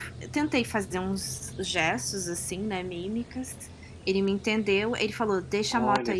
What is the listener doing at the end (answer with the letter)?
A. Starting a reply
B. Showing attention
B